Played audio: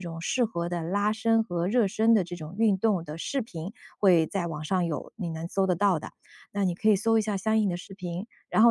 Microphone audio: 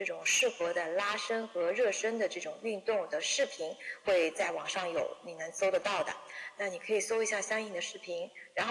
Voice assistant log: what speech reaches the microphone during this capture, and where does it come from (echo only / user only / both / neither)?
echo only